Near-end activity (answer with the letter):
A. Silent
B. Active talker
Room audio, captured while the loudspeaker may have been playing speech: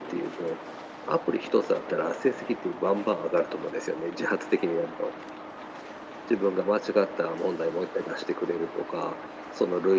A